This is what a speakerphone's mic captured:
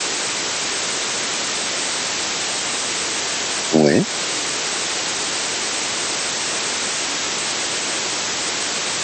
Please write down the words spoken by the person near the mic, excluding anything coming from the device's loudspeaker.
ouais,

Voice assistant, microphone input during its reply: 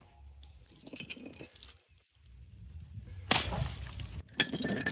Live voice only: none

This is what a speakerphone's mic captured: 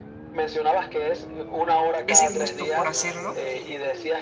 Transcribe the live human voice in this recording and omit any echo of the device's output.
ese gusto por hacerlo

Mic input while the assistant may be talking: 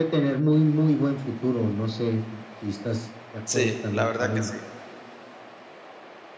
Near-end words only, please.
sí, la verdad que sí.

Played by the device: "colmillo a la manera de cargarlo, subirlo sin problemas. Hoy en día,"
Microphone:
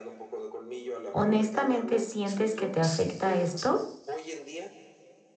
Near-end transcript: ¿Honestamente sientes que te afecta esto?

